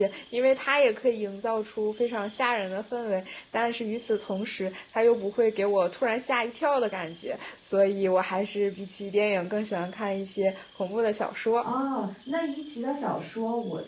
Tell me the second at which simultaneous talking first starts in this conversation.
none

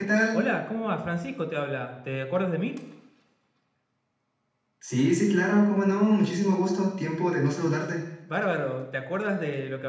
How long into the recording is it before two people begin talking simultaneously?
none

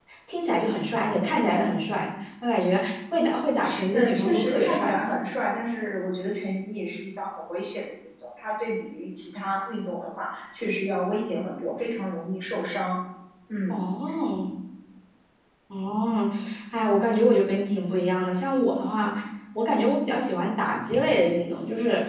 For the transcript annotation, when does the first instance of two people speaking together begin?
4 s

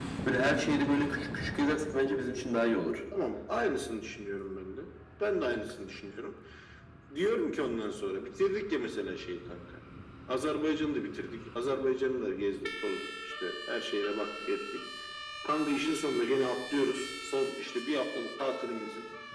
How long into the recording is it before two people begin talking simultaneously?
none

